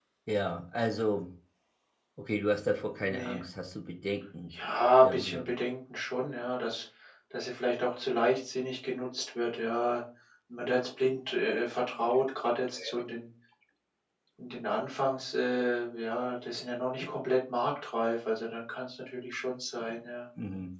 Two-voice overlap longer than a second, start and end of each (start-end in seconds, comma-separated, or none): none